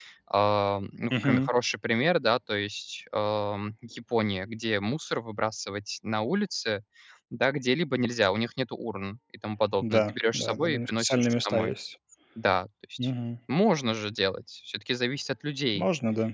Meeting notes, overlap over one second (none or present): present